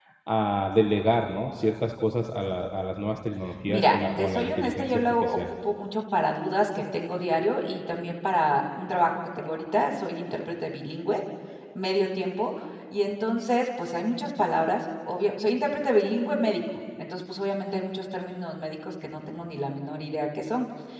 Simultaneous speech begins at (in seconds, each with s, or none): 3.7 s